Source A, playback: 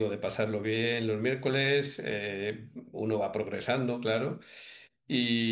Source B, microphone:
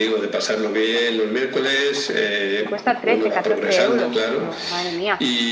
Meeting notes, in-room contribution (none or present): present